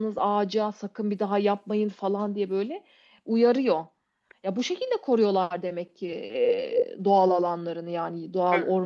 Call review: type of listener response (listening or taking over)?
taking over